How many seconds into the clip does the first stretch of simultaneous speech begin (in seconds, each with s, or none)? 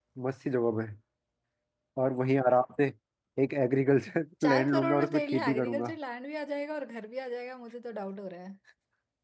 4.4 s